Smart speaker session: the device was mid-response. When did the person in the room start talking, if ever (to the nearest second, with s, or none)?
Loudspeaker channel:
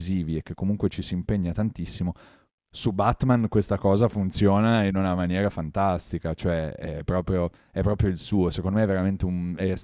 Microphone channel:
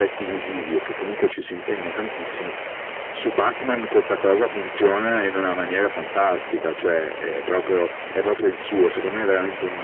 none